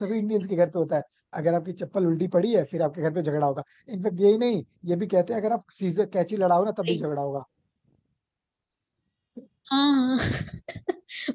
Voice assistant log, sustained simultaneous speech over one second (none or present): none